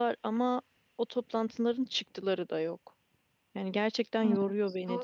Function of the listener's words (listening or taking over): taking over